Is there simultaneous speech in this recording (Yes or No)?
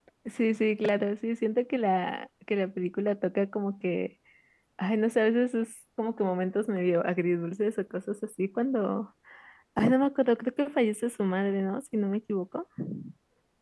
No